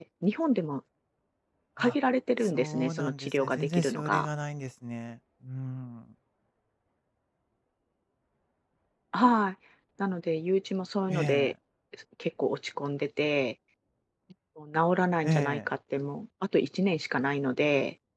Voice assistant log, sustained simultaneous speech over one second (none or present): present